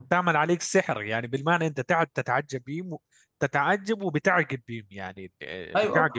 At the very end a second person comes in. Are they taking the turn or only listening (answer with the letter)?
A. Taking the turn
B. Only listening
A